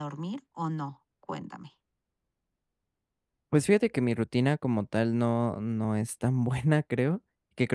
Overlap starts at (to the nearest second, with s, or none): none